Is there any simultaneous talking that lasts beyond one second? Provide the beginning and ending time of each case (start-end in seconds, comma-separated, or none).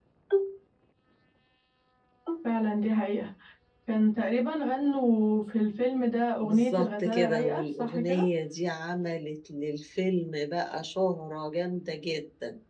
6.4-8.2